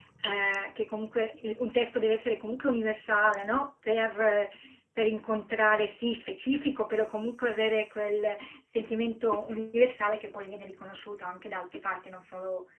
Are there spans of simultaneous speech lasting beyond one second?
No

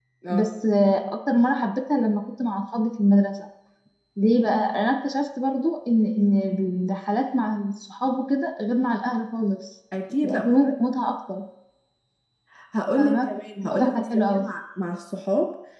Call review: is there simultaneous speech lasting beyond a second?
Yes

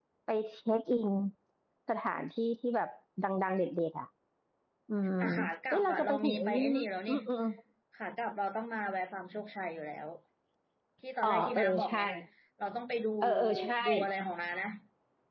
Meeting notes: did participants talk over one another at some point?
Yes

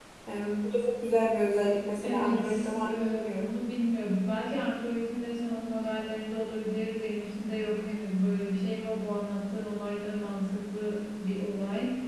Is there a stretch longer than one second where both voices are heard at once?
Yes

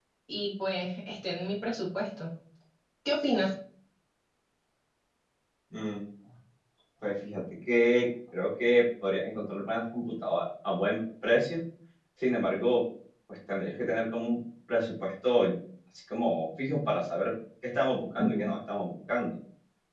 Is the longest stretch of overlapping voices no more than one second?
Yes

